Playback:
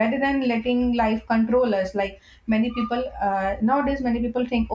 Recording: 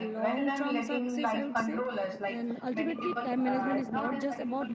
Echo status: present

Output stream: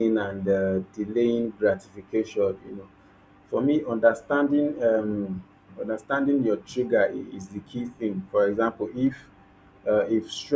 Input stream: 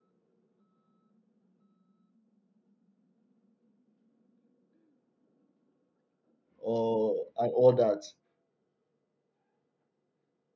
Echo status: none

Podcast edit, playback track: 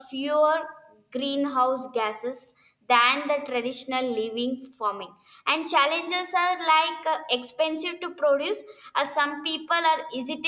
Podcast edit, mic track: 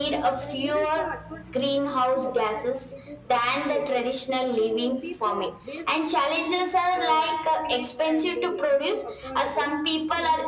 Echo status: present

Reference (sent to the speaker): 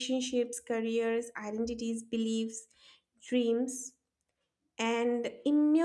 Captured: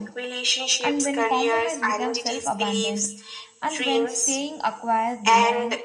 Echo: present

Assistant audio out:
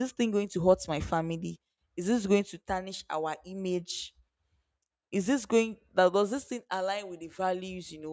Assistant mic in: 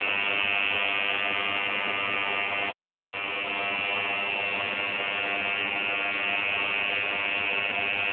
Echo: none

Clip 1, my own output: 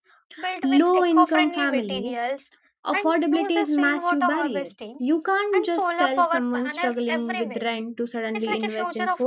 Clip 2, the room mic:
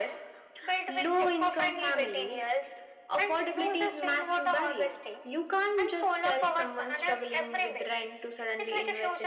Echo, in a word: present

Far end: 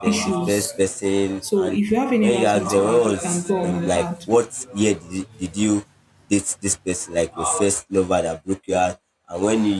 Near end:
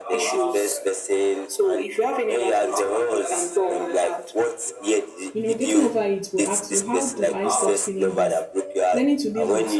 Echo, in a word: present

